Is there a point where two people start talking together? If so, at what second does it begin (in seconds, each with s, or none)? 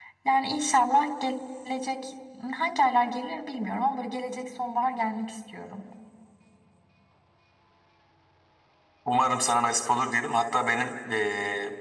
none